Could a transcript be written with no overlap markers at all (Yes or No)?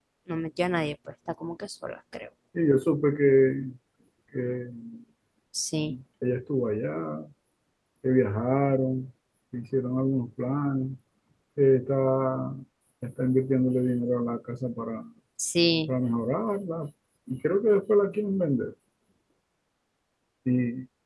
Yes